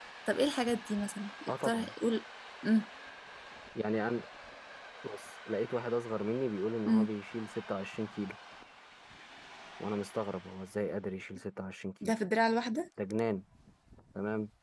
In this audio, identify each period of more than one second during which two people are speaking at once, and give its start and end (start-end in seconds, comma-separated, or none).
none